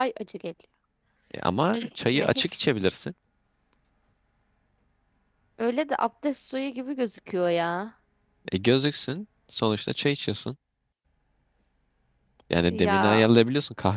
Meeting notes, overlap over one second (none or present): none